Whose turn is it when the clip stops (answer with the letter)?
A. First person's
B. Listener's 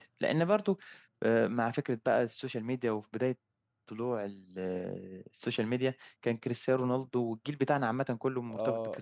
B